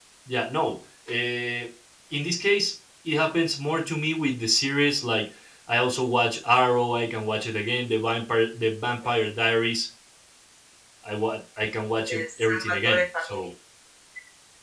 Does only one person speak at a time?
No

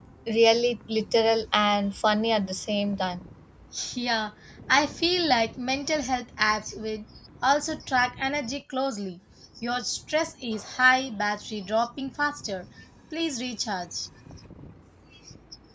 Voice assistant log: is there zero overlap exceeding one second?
Yes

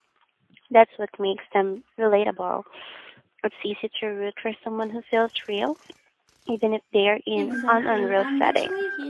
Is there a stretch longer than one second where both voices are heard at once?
Yes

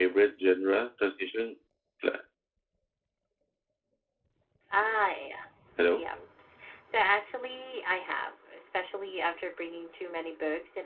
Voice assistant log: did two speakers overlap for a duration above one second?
No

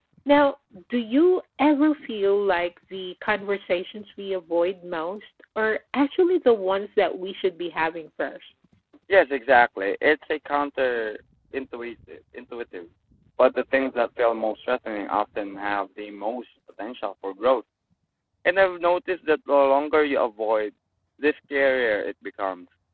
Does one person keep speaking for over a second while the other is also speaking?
No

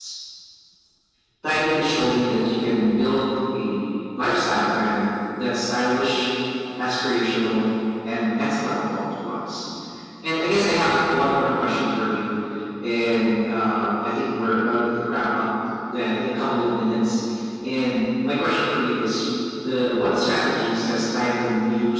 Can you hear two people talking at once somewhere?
No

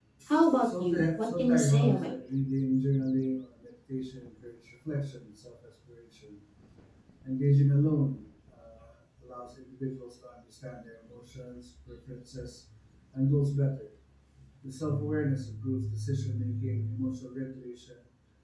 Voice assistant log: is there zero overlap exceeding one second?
No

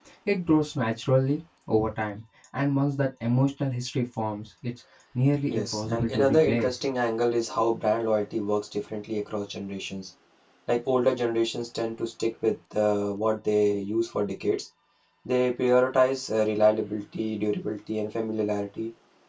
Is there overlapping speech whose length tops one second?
Yes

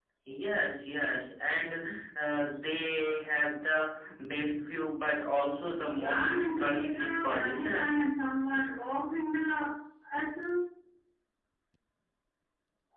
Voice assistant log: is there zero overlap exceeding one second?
No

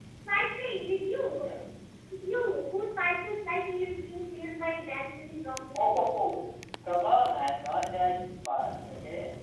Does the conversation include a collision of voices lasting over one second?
No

